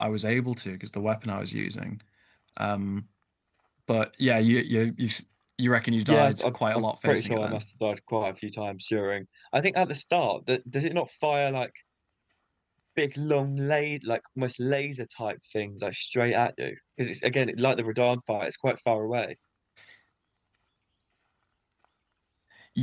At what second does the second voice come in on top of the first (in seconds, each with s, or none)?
6.1 s